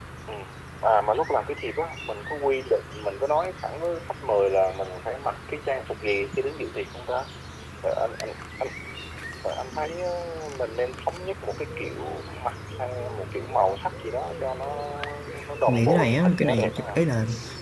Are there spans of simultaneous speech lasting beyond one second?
Yes, from 15.7 s

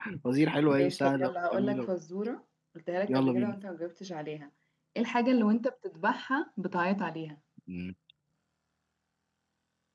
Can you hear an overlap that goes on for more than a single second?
Yes, from 0.7 s

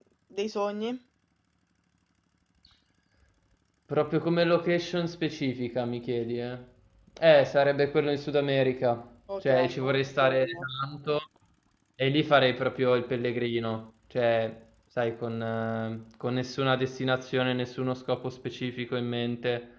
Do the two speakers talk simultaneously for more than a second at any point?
Yes, from 9.3 s

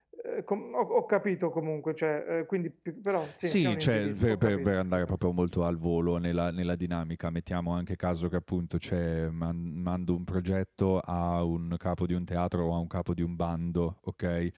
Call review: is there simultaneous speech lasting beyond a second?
Yes, from 3.4 s

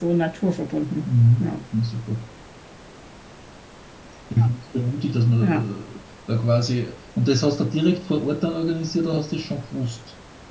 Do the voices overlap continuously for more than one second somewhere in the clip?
No

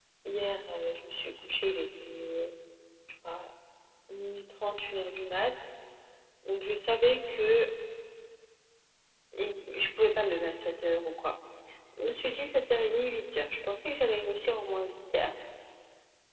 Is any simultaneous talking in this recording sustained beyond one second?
No

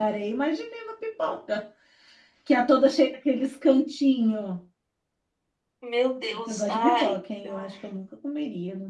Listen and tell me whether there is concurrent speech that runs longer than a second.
Yes, from 6.5 s

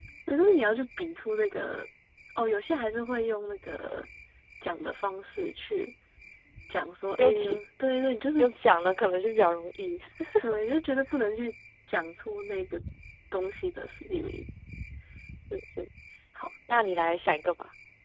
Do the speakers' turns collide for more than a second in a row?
No

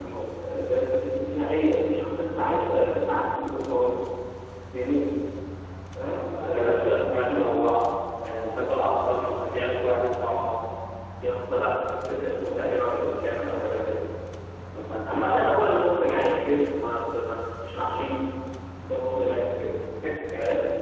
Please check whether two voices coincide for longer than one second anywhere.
Yes, from 6.1 s

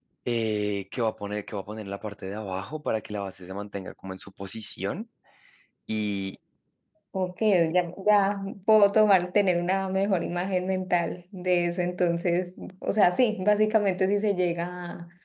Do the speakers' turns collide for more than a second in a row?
No

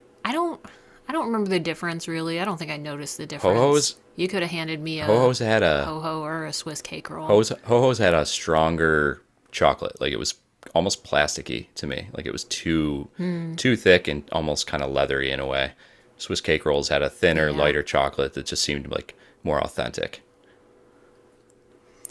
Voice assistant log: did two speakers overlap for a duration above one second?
No

